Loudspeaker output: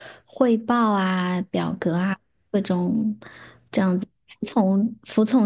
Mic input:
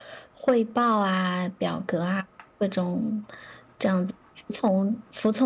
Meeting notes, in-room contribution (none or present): none